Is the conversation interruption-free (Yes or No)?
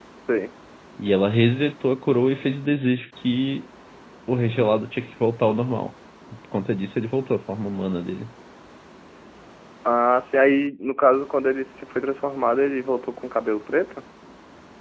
Yes